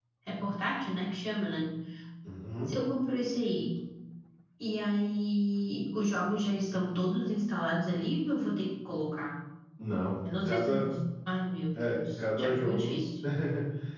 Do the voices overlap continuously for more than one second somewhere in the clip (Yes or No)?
Yes